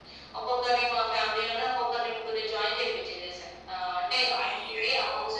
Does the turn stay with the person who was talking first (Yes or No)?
Yes